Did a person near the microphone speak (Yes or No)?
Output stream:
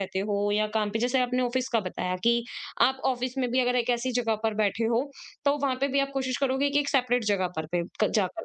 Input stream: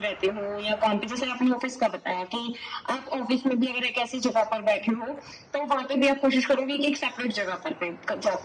No